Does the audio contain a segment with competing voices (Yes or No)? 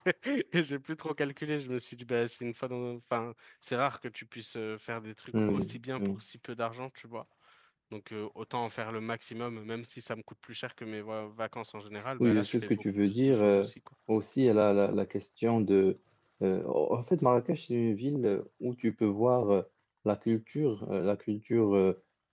Yes